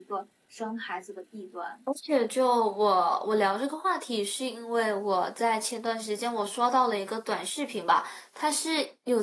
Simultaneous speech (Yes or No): No